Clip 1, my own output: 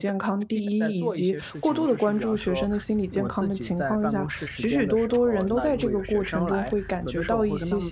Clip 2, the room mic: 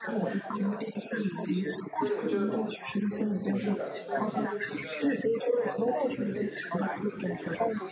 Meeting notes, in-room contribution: present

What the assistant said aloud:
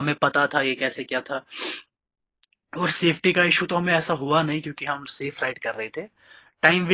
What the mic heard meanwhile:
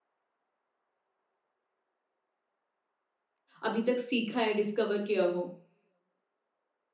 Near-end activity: present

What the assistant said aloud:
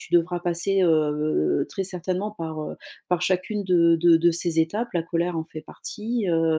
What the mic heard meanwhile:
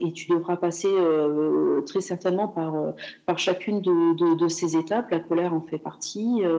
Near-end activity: none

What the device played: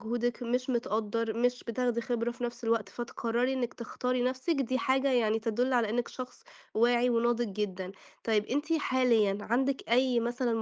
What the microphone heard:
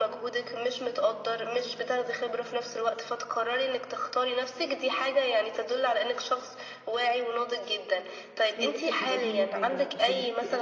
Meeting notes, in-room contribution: present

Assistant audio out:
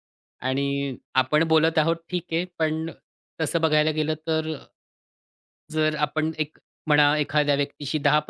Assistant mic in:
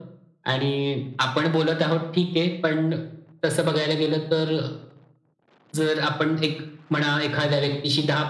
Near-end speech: none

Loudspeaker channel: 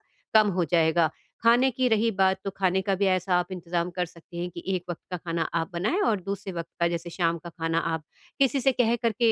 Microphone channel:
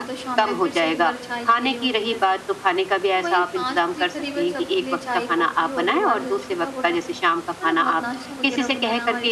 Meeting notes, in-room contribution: present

